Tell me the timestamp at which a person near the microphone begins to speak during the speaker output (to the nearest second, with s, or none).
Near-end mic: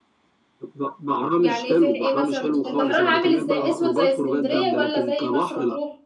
1 s